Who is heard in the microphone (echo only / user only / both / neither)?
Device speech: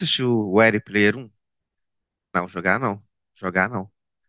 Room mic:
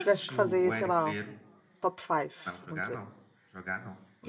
both